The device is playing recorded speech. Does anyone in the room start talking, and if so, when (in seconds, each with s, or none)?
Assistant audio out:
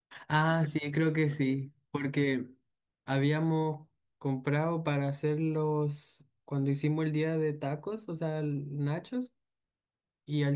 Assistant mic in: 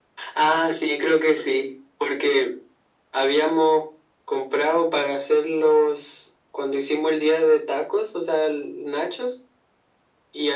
none